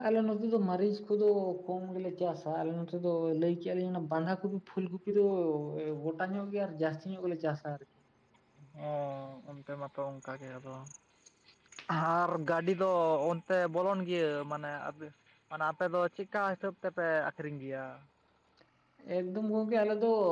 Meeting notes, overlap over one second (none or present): none